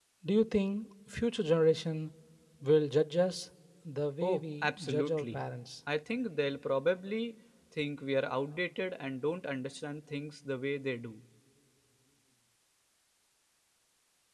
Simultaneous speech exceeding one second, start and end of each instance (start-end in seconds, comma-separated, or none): 4.2-5.5